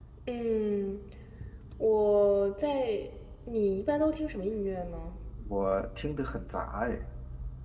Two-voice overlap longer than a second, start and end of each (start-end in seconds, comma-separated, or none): none